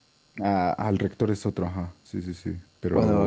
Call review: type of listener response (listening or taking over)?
taking over